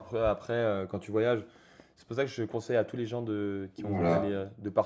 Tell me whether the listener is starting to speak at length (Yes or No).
No